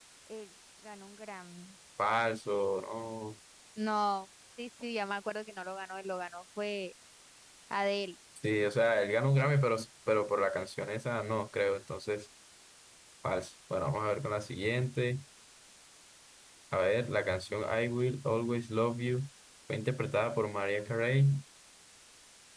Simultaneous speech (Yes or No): No